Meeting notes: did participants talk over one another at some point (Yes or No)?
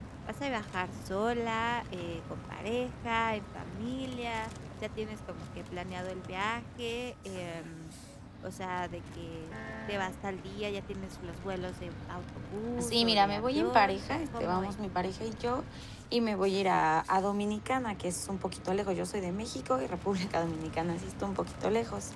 Yes